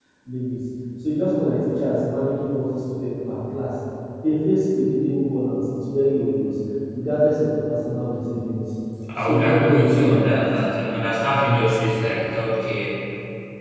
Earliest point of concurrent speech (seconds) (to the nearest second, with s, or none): 9 s